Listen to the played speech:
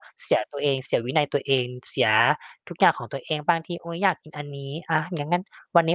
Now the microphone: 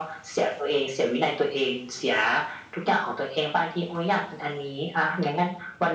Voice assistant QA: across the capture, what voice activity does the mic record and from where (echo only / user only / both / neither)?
echo only